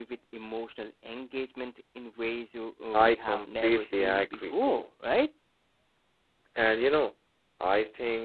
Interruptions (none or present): present